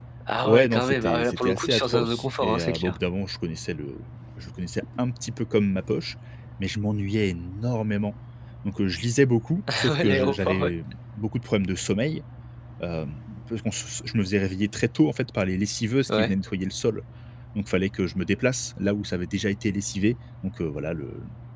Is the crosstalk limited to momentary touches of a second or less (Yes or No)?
No